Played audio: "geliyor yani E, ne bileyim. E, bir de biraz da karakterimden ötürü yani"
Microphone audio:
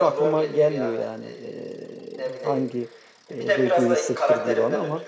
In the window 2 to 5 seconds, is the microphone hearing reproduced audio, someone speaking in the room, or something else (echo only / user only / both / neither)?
both